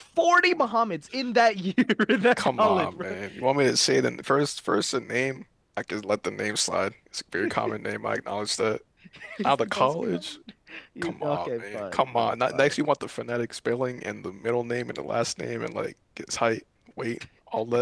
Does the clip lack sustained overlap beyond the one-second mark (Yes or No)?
No